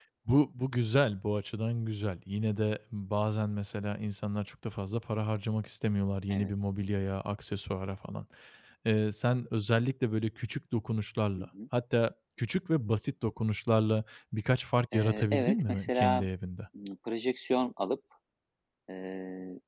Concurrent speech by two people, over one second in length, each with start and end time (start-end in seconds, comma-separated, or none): 14.9-16.2